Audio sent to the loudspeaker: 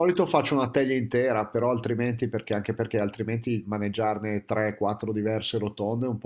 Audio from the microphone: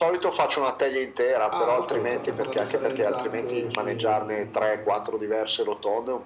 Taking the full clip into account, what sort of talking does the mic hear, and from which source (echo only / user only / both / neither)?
both